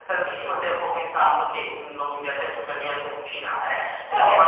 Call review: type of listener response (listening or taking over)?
listening